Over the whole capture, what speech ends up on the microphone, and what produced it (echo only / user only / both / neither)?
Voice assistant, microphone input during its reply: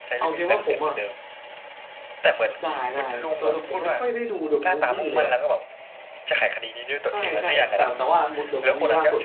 both